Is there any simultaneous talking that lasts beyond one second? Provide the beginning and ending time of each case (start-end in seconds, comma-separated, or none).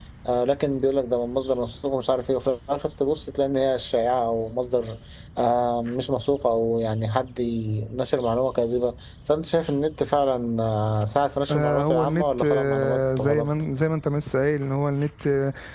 11.5-13.5